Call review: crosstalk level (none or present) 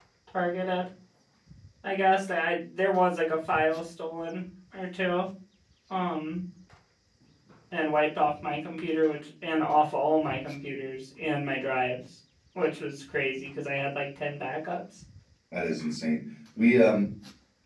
none